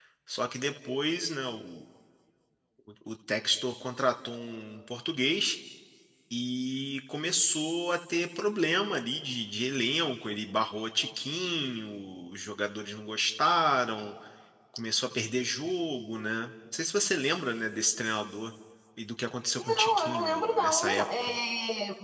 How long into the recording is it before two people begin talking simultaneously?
19.6 s

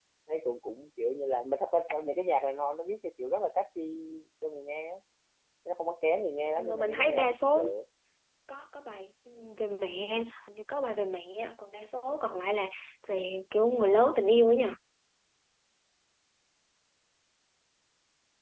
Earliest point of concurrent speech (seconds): 6.5 s

